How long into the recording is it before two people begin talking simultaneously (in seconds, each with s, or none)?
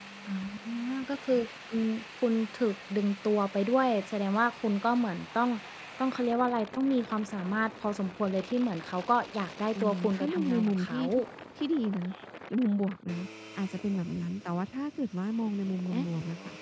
9.8 s